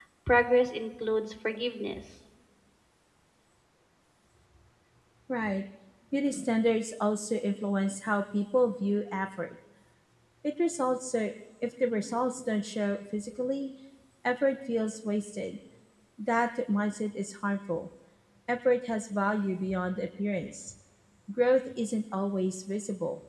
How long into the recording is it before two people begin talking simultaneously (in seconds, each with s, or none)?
none